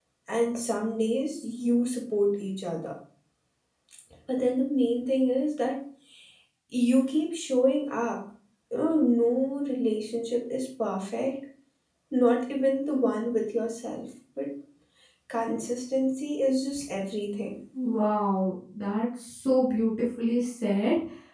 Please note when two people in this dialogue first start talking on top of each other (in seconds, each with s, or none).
none